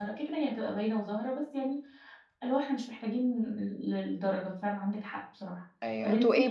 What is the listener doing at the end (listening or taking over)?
taking over